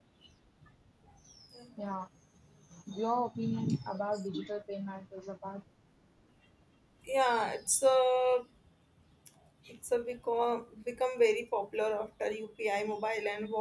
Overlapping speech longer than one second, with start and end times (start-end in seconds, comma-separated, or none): none